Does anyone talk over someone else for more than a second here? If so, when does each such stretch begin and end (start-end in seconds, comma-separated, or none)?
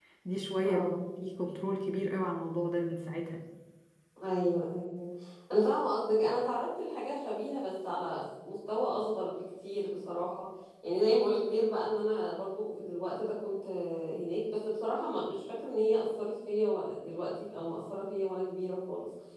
none